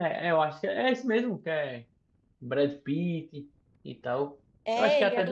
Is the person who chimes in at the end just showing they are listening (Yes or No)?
No